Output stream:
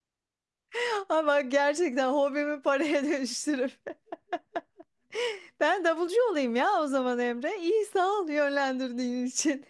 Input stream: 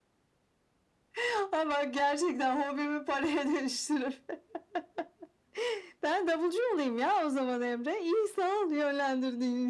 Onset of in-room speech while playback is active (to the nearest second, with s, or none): none